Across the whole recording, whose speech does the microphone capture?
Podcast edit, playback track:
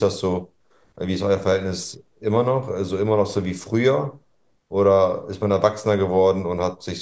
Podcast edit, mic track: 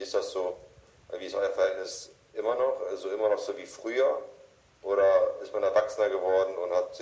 echo only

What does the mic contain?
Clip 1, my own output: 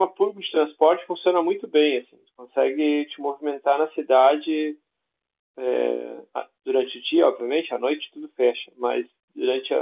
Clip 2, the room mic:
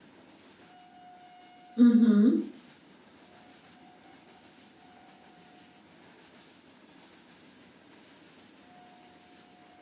user only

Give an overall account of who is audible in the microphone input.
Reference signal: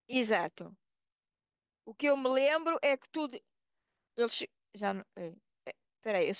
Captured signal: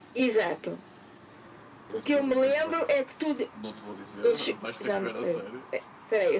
both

